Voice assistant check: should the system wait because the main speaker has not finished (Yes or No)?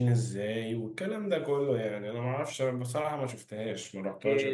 No